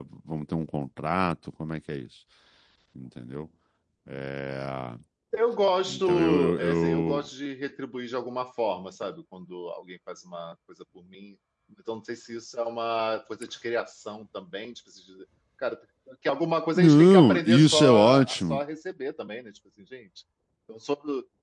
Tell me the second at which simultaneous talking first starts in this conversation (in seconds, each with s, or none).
5.9 s